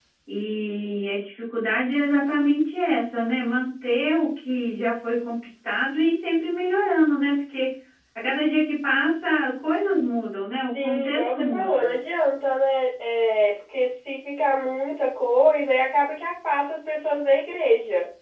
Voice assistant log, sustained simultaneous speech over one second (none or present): present